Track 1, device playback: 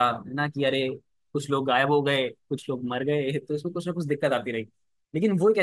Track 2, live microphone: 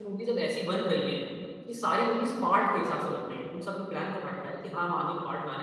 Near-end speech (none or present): present